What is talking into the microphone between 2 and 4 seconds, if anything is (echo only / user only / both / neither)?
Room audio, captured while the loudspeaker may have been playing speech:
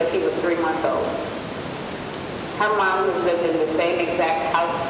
echo only